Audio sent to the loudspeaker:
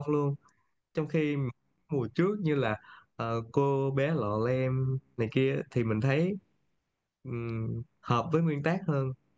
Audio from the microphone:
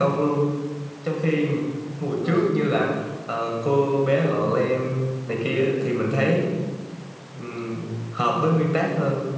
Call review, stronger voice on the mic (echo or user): echo